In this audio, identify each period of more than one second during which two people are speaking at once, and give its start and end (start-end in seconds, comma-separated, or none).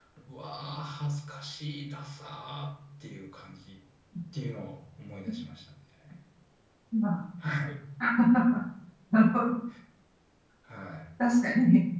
none